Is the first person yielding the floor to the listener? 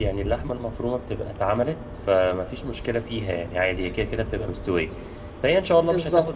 No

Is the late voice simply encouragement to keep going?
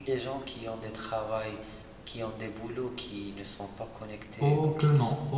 No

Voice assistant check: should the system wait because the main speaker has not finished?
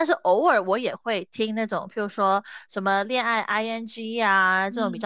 Yes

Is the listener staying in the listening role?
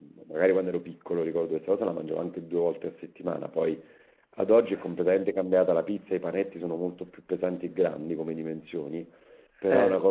Yes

